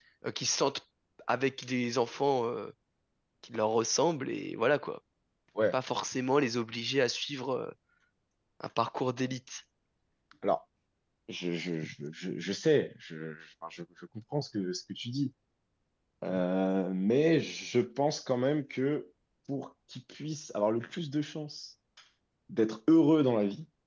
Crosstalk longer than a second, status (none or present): none